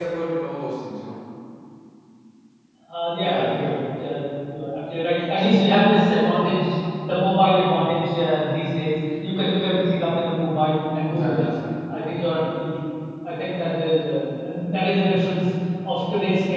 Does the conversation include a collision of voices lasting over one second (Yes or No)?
No